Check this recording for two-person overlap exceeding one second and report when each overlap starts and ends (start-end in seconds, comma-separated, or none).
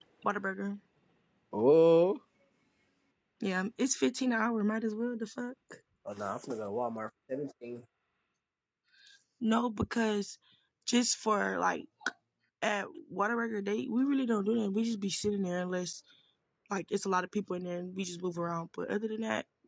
none